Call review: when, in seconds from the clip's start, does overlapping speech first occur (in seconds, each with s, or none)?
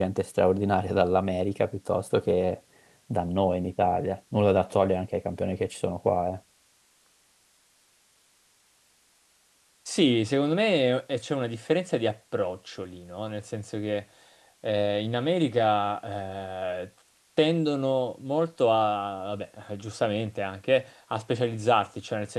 none